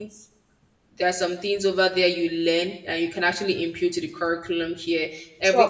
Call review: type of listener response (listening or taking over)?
listening